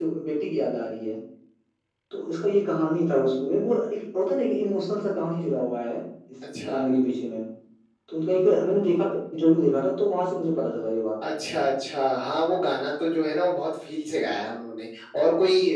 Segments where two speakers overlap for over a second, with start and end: none

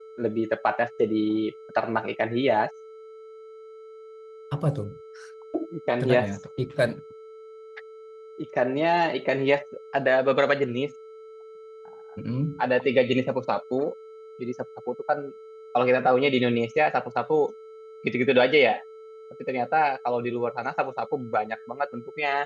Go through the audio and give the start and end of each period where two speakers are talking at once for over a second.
none

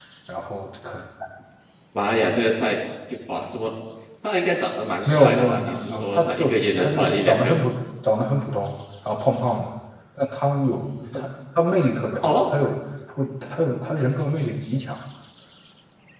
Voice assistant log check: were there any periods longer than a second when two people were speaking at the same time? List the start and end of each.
5.1-7.6

